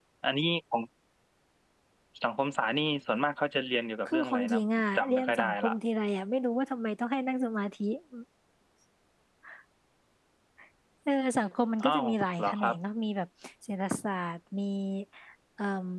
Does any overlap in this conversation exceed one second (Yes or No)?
Yes